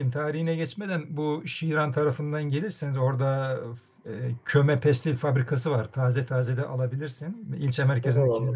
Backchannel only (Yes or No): No